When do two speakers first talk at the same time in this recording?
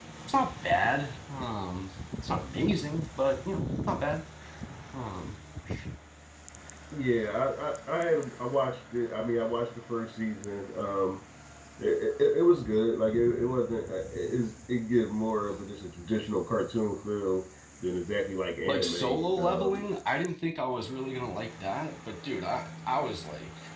18.6 s

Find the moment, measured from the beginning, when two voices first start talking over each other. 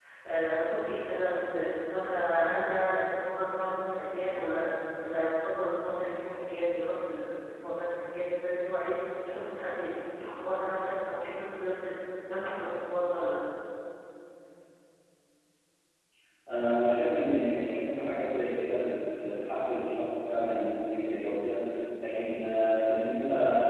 none

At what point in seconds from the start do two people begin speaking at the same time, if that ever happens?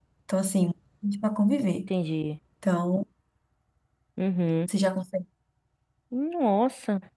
none

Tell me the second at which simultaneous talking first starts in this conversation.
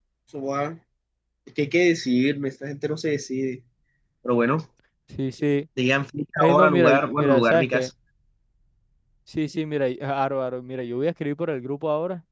6.4 s

